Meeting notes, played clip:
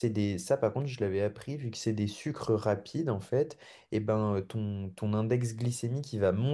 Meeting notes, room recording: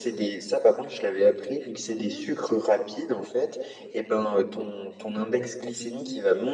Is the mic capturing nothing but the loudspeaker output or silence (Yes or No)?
No